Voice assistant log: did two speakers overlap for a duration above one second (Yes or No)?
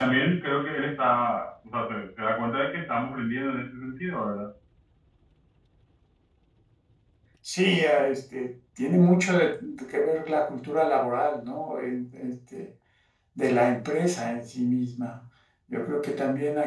No